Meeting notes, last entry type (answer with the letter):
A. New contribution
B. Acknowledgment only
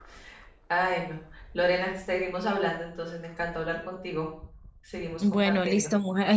A